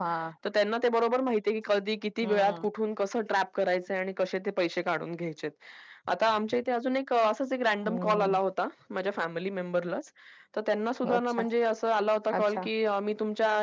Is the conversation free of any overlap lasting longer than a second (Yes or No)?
Yes